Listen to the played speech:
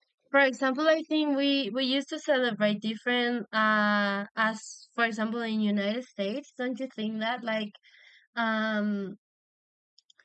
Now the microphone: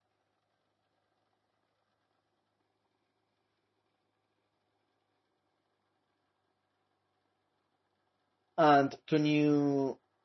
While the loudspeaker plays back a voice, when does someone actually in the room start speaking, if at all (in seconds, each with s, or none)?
8.6 s